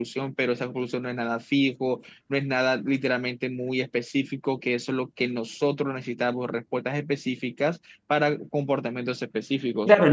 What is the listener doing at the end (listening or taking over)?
taking over